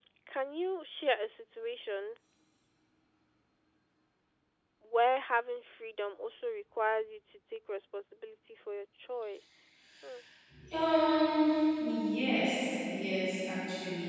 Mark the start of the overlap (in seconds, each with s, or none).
none